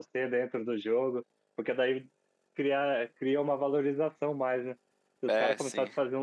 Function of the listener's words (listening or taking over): listening